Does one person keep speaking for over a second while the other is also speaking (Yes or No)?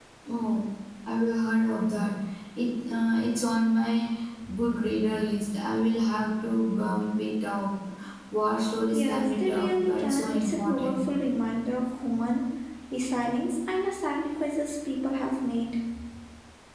Yes